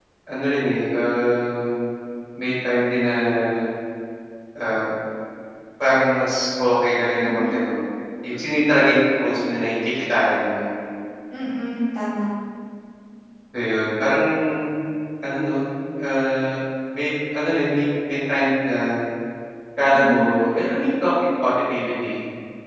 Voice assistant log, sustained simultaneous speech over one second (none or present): none